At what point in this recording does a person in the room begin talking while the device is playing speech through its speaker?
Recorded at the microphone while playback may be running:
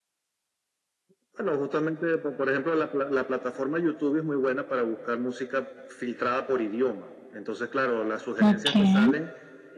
8.5 s

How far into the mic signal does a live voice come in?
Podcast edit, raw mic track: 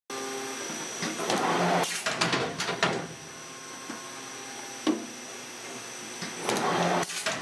none

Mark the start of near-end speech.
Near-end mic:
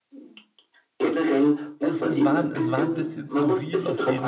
1.8 s

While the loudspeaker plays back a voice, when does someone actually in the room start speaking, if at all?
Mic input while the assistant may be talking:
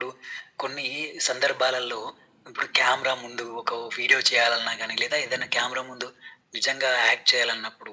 none

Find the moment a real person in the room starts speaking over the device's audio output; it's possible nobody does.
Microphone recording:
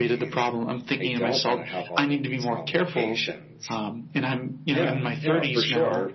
none

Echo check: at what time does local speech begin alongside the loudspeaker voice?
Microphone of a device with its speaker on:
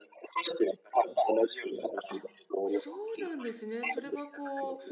2.1 s

